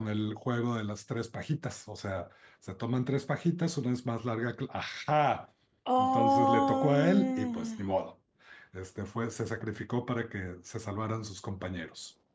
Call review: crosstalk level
present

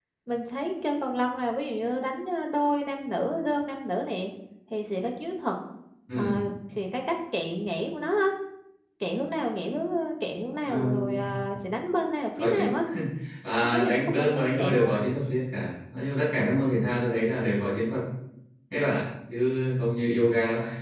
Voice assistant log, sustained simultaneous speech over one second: present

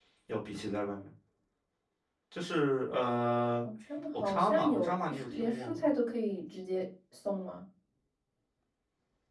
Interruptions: present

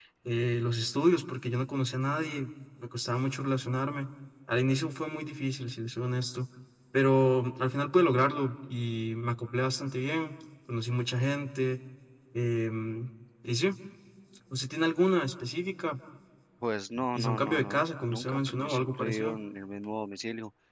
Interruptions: present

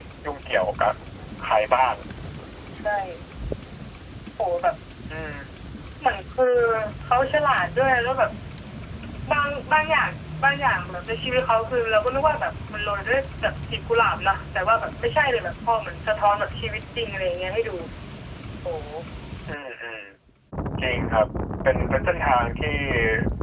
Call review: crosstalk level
none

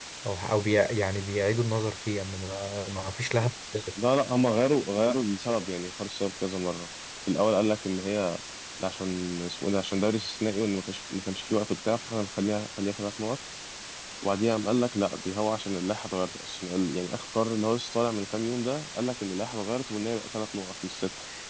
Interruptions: none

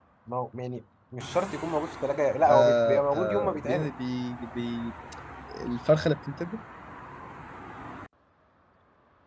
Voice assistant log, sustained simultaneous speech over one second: present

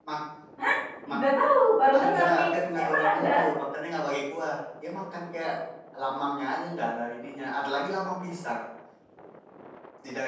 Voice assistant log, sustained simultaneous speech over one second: present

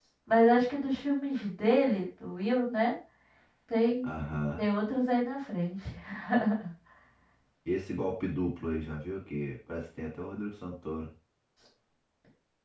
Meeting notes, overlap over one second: none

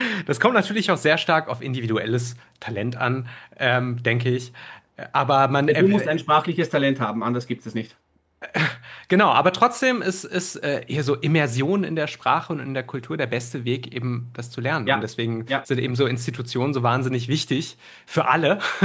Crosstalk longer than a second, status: none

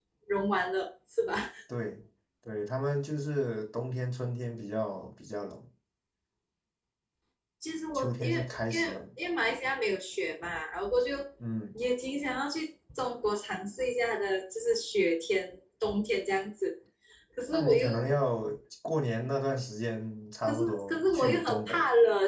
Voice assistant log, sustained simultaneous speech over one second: present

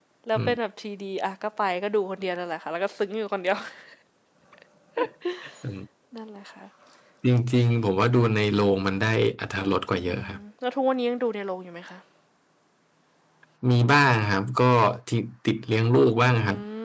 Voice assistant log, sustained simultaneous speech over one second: none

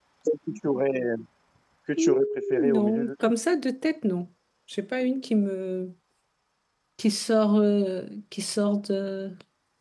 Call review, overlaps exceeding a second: present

